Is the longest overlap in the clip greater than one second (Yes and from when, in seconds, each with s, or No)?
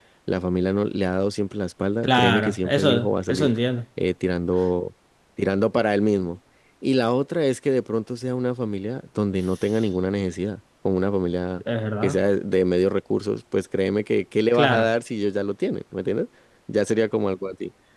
Yes, from 2.0 s